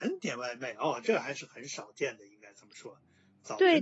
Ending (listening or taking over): taking over